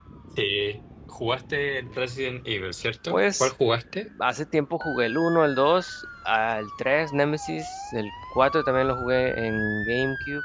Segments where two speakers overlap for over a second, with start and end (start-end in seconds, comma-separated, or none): none